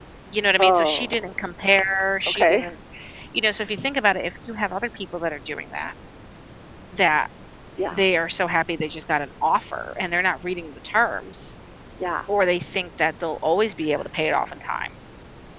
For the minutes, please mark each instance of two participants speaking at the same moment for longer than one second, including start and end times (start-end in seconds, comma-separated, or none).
0.6-1.8